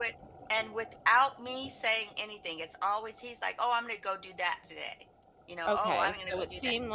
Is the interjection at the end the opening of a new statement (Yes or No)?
Yes